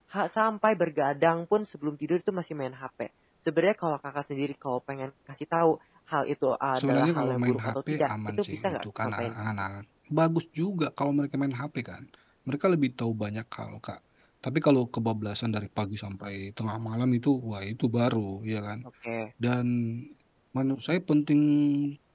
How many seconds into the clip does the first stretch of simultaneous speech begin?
6.8 s

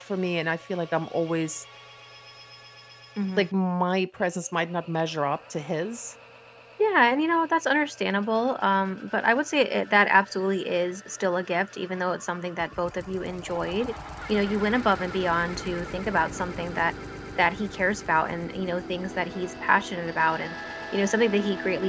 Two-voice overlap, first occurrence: none

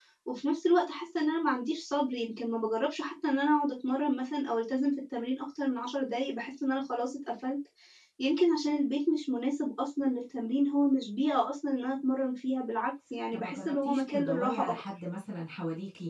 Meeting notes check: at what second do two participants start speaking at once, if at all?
13.3 s

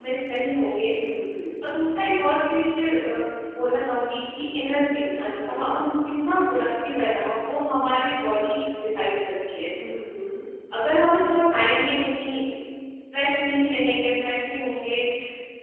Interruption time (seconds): none

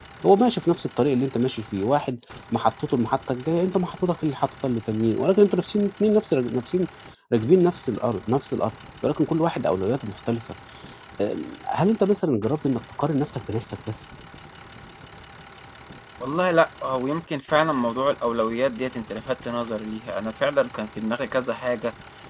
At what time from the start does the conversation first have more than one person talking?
none

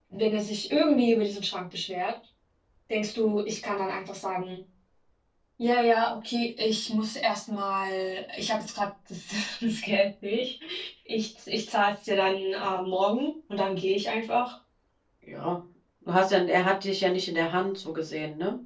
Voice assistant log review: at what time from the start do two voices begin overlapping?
none

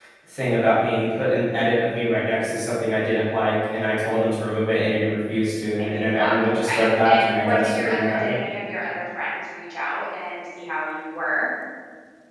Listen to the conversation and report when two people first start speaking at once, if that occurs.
5.8 s

